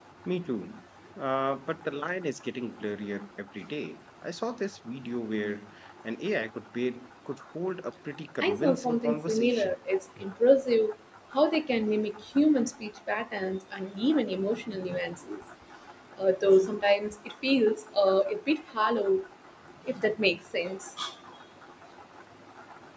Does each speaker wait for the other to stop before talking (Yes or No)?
No